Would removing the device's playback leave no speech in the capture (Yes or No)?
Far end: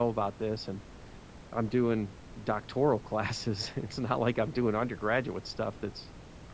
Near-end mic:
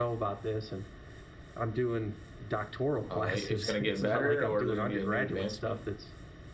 No